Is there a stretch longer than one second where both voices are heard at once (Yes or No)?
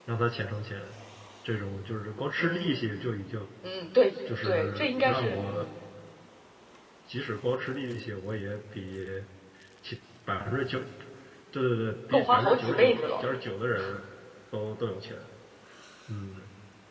Yes